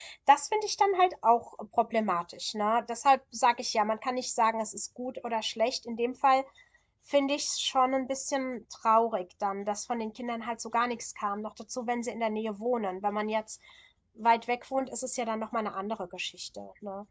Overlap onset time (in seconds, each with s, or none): none